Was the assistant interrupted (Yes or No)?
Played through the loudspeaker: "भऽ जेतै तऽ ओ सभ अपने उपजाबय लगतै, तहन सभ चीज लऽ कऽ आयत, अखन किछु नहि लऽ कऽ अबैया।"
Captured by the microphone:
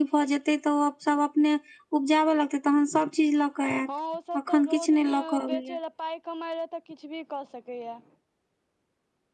Yes